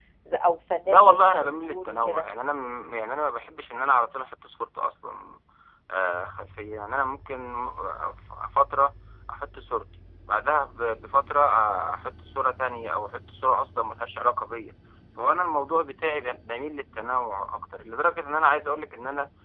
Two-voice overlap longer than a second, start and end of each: 0.8-2.2

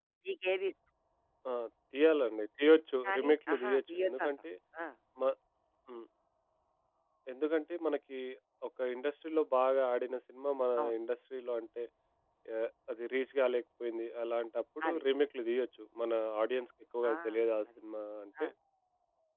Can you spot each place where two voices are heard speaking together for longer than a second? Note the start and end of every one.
3.0-4.3

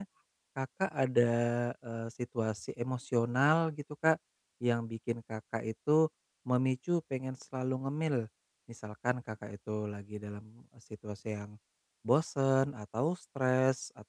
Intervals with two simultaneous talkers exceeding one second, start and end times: none

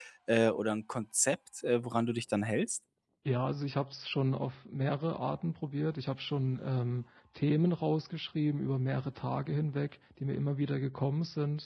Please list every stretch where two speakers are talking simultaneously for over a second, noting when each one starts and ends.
none

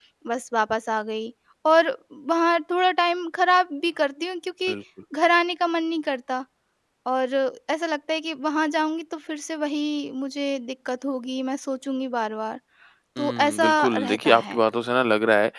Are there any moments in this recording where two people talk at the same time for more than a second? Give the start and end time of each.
13.2-14.6

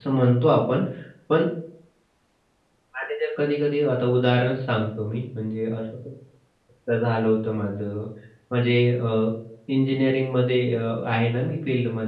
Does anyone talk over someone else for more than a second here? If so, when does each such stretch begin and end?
none

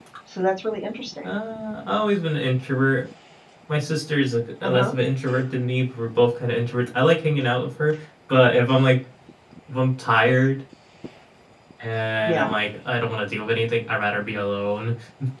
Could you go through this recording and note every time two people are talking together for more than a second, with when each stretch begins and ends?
none

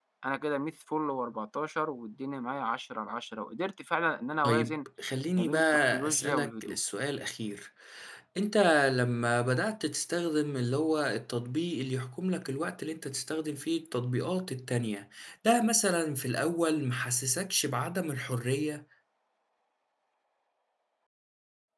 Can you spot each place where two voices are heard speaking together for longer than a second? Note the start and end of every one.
5.4-6.8

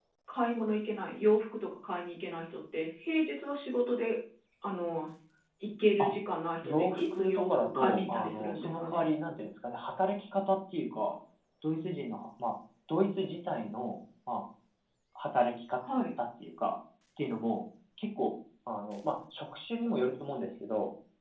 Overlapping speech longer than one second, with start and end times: 6.6-9.1

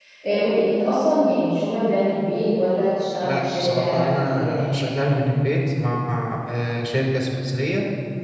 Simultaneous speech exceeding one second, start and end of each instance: 3.2-4.8

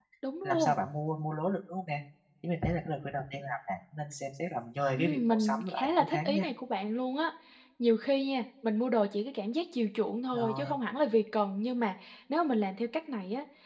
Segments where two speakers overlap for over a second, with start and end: 5.0-6.4

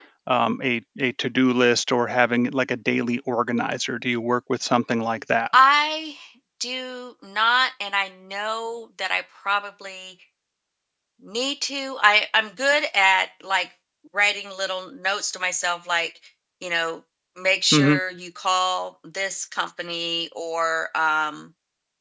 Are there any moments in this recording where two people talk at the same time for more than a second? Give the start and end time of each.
none

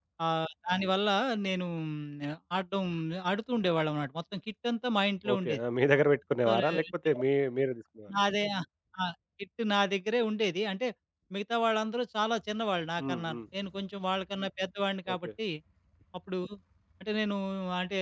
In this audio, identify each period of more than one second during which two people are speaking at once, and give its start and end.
none

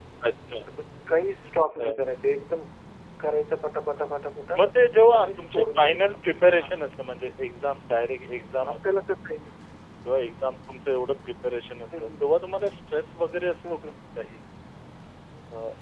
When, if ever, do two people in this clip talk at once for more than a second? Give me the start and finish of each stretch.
5.2-6.8

